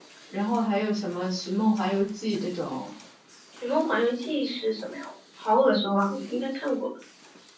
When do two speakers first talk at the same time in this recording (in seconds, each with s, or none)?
none